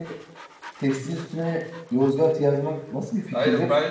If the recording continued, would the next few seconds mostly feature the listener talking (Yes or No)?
Yes